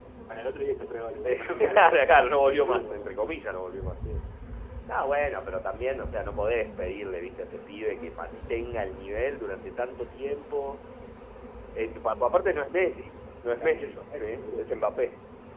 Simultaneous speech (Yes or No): Yes